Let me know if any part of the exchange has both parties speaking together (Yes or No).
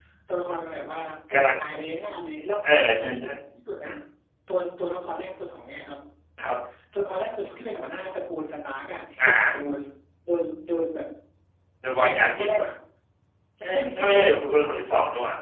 Yes